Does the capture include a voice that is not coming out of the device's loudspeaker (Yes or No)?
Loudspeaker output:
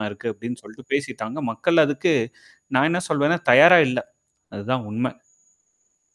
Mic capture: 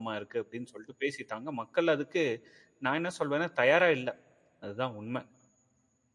No